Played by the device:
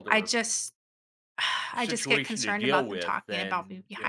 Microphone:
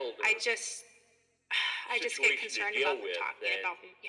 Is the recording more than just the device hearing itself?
No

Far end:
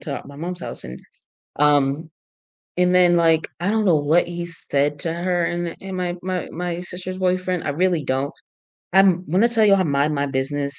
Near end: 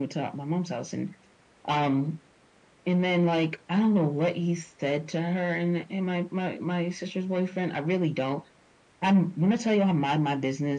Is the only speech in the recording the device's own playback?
Yes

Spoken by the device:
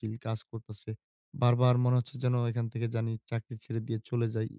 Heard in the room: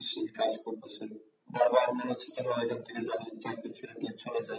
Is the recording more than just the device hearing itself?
No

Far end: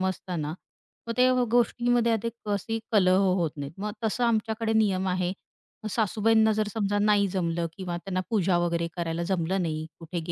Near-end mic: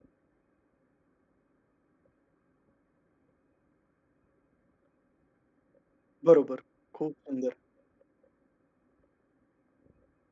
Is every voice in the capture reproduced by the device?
No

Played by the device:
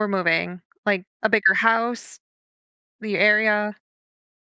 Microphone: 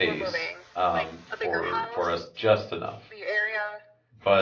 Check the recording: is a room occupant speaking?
Yes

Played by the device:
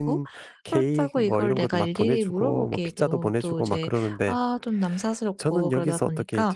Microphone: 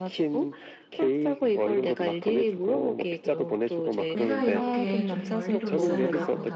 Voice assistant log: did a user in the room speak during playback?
Yes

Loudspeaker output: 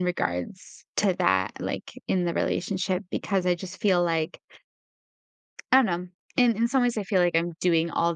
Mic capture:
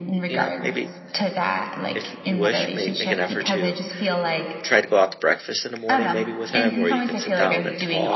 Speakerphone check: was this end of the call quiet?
No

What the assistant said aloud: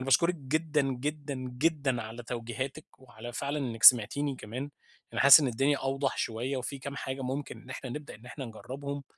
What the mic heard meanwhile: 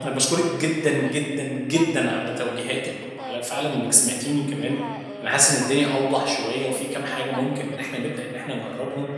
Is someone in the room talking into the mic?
Yes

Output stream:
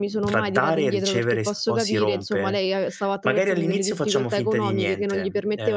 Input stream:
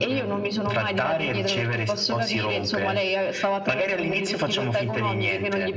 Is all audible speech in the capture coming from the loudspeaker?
Yes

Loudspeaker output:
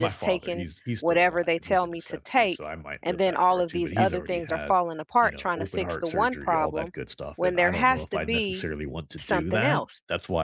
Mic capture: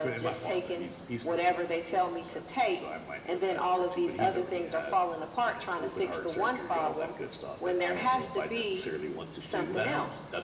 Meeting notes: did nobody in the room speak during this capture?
Yes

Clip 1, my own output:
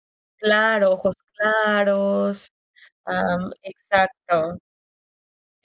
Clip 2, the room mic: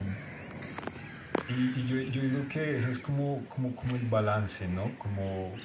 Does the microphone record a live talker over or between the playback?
Yes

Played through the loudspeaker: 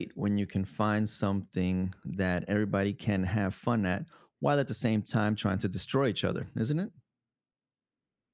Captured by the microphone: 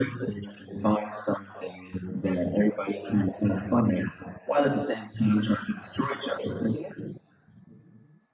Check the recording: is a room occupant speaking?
No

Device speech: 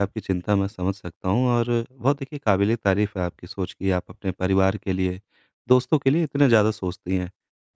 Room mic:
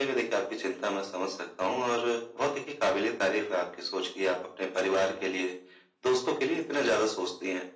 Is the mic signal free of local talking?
Yes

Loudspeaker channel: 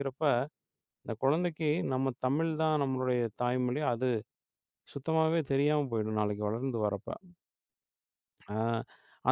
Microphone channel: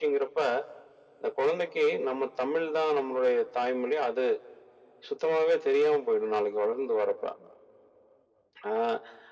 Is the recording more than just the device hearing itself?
No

